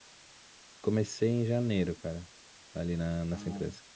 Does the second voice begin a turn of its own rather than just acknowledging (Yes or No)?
Yes